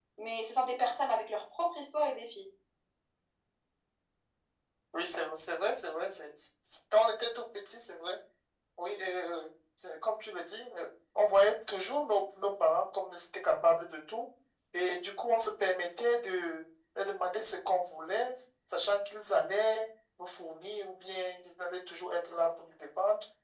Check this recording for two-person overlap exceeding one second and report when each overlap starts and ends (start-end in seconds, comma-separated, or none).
none